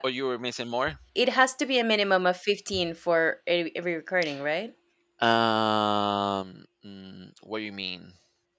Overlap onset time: none

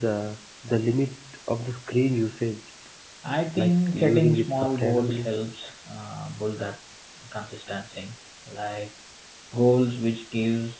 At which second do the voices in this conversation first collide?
3.6 s

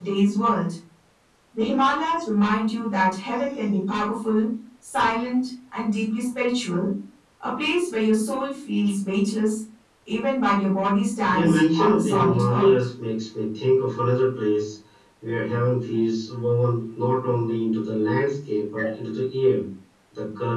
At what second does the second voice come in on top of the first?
11.3 s

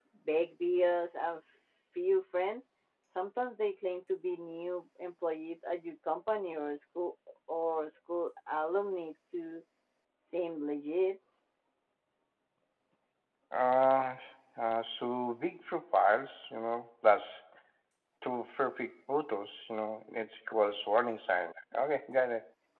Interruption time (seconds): none

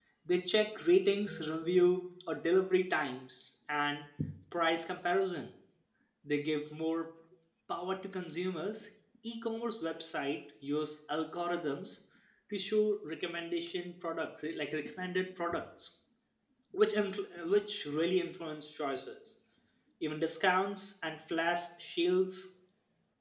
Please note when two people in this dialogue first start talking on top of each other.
none

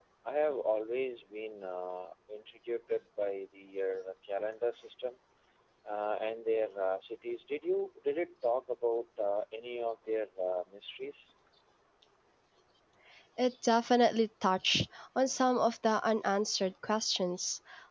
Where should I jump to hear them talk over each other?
none

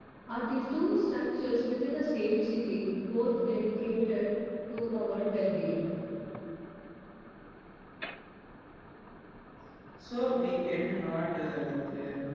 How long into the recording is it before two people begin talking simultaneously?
none

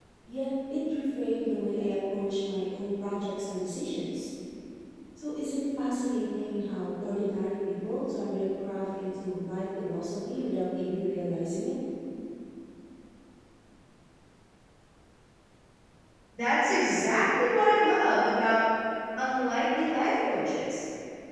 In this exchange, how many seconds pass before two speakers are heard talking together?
none

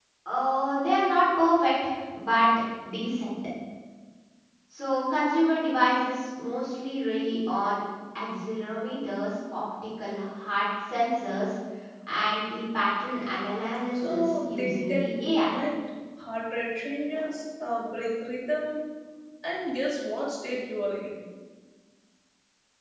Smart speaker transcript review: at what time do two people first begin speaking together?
13.9 s

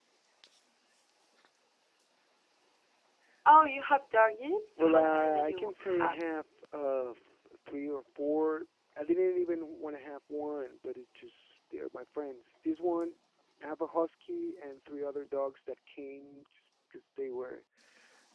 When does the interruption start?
4.8 s

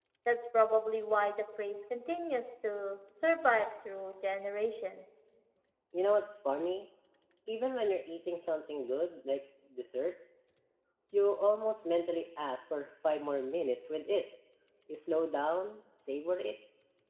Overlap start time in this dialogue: none

